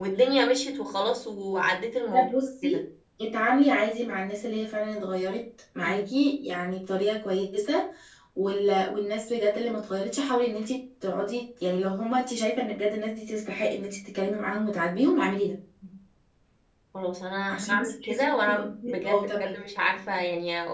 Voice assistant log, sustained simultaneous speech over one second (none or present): present